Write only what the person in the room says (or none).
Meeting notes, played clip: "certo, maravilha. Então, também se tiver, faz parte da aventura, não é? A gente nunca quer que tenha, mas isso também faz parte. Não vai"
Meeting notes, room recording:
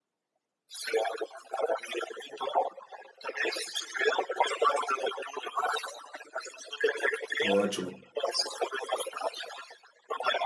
Ótimo,